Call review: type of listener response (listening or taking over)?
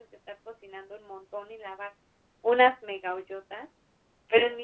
listening